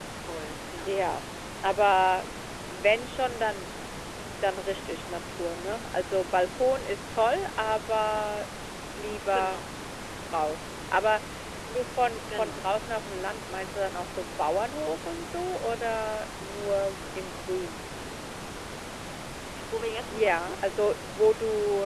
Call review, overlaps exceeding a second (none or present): none